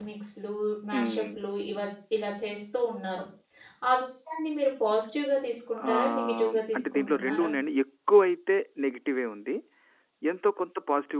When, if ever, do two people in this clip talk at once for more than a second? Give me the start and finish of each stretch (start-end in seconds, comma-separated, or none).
5.9-7.5